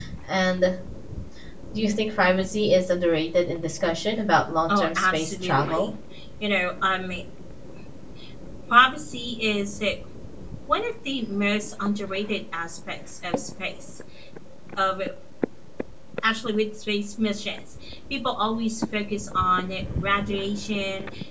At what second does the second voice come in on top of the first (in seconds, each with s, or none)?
4.7 s